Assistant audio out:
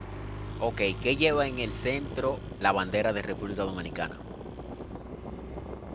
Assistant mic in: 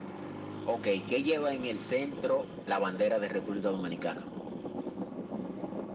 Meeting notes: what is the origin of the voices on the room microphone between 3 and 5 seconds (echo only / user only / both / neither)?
echo only